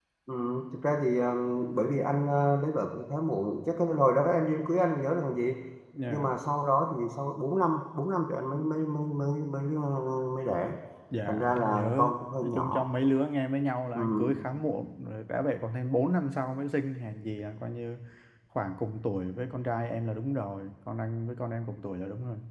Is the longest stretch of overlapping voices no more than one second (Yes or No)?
No